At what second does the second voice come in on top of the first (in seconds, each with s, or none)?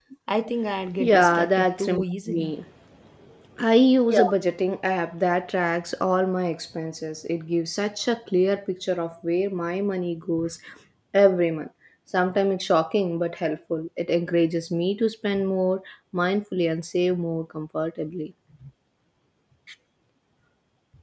1.0 s